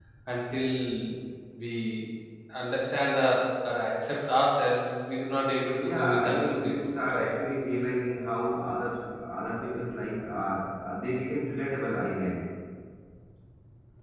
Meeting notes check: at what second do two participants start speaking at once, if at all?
5.8 s

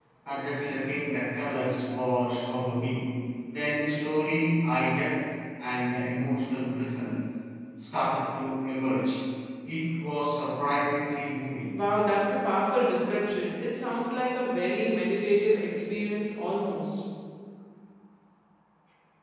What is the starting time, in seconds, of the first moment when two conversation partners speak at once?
none

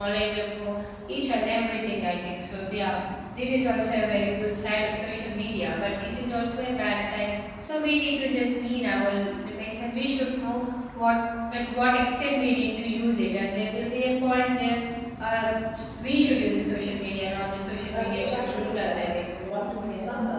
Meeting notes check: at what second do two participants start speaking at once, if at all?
17.9 s

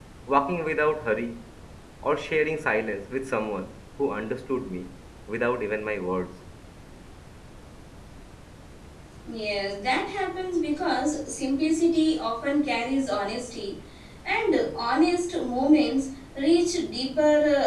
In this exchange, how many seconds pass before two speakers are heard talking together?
none

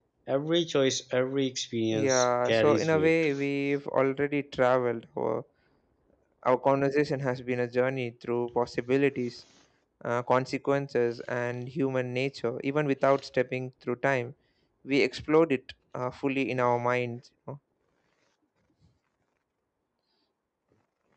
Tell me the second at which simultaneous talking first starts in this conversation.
1.9 s

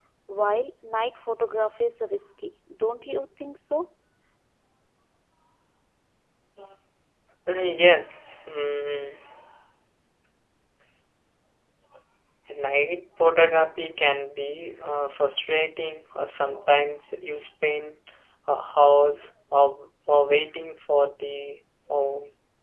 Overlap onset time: none

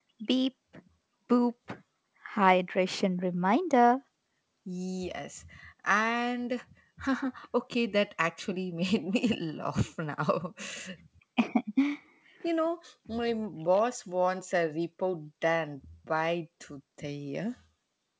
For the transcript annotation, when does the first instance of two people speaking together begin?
none

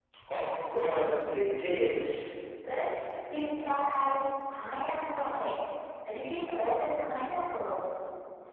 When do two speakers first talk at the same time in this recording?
none

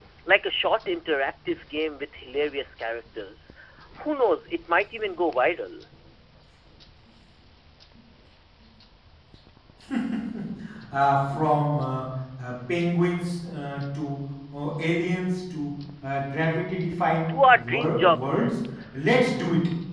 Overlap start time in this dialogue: 17.3 s

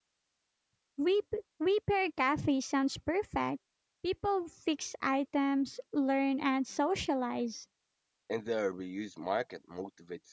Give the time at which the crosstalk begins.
none

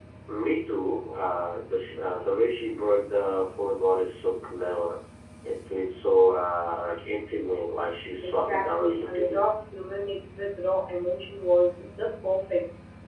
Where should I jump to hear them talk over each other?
8.2 s

